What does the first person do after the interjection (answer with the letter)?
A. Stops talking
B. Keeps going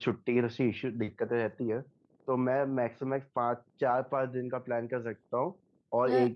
B